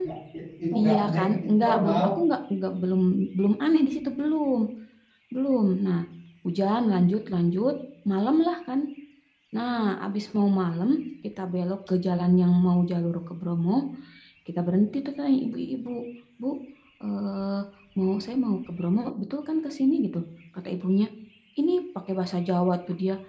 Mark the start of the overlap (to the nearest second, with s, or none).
1 s